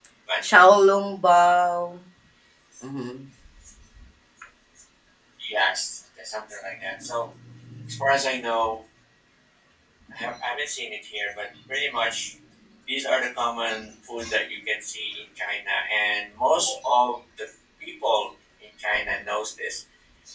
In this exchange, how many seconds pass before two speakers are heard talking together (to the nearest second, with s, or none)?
none